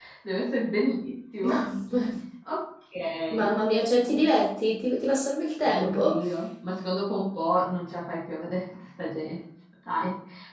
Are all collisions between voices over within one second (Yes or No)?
Yes